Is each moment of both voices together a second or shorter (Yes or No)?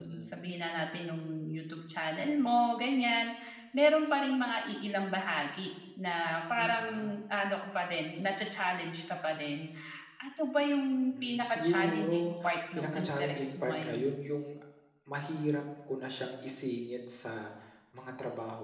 No